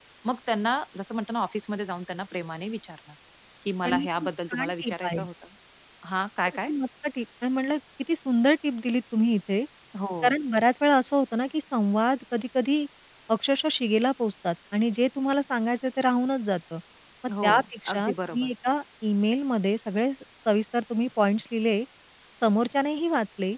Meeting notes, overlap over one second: present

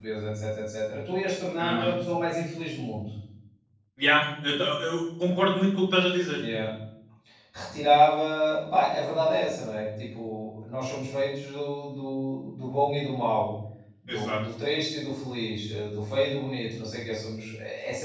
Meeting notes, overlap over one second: none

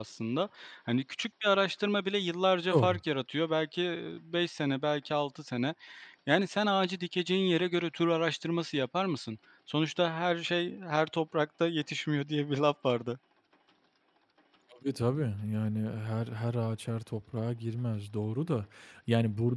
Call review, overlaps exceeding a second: none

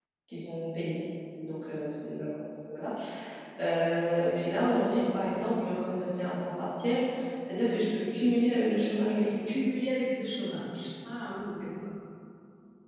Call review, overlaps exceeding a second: none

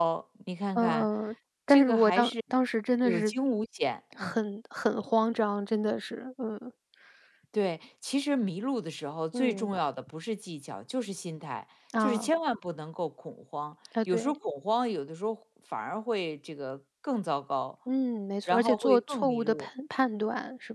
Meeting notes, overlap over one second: present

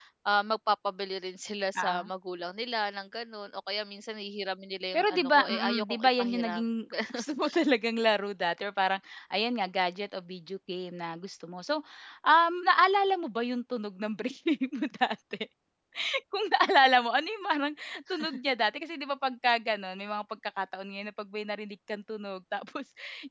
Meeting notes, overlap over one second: present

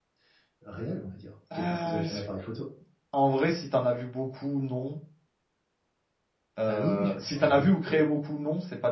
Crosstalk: present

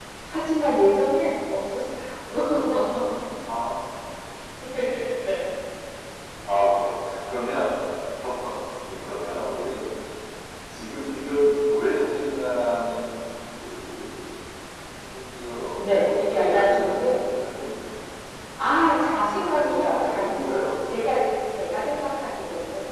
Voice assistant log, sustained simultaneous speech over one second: present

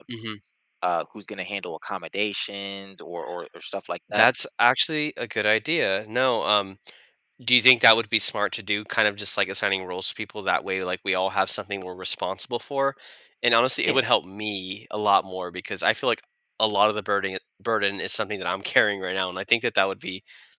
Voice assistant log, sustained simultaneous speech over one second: none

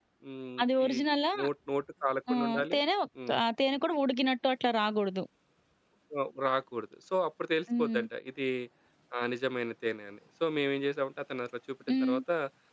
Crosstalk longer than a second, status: none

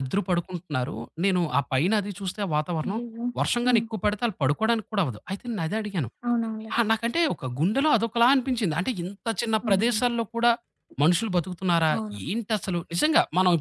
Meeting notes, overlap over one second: none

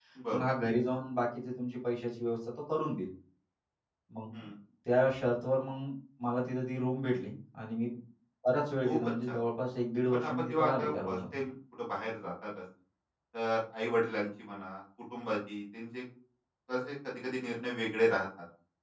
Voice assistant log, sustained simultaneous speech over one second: present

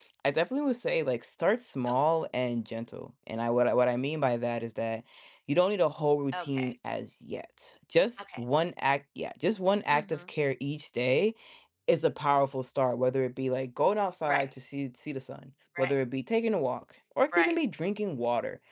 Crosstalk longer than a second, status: none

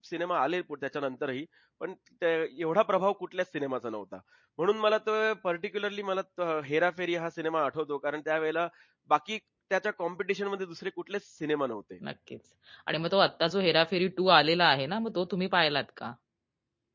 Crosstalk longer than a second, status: none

